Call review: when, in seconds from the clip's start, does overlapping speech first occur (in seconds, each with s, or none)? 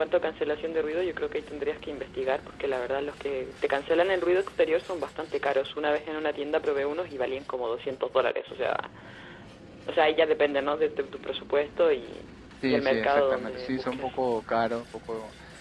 12.6 s